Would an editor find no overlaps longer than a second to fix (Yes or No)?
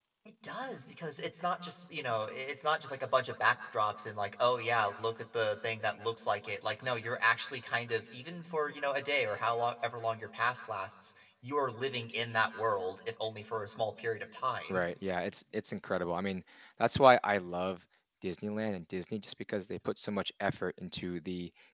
Yes